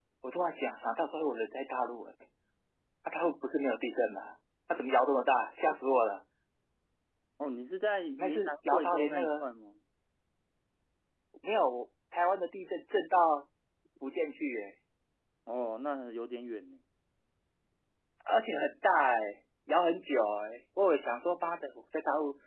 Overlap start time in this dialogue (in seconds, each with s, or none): 8.2 s